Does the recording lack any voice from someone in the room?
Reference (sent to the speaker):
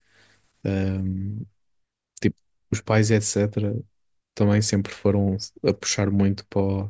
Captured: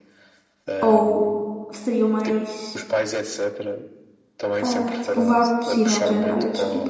No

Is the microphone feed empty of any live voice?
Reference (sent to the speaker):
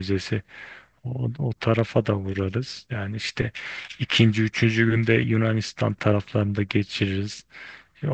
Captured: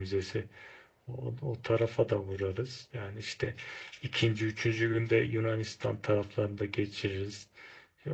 Yes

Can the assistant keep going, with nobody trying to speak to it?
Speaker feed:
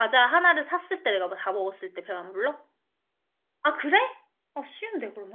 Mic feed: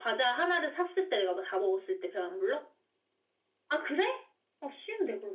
Yes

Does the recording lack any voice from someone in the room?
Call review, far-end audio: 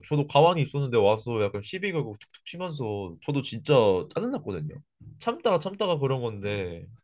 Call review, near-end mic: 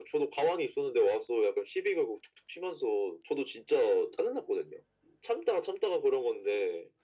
Yes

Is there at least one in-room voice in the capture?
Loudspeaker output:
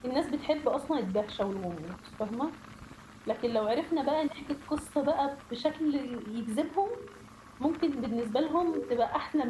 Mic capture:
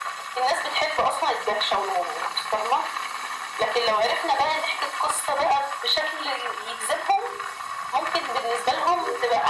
No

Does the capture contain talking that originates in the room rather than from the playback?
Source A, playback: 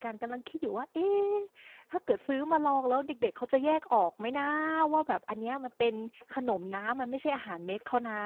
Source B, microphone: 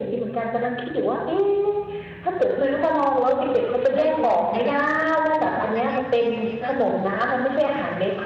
Yes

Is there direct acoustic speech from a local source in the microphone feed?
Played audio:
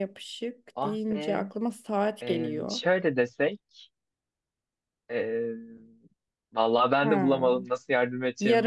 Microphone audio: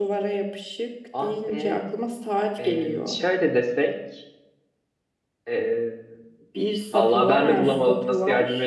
Yes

